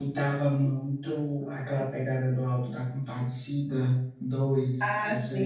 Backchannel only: No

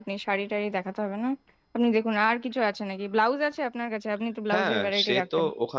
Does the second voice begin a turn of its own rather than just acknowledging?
Yes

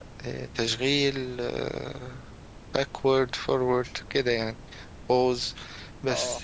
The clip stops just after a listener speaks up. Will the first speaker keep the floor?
Yes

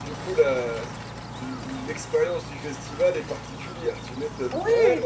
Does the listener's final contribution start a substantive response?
Yes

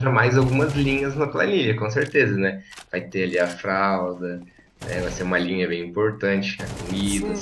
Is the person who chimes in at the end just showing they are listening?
No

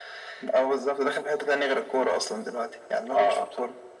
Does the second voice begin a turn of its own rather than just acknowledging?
Yes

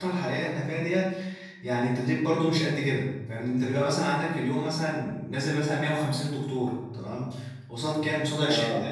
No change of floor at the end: Yes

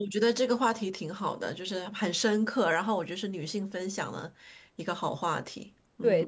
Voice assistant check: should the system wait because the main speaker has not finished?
No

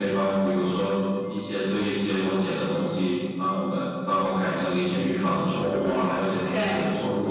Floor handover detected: No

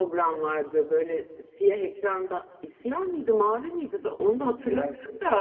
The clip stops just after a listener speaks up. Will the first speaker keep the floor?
Yes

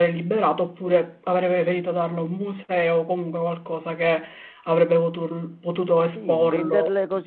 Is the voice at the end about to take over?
Yes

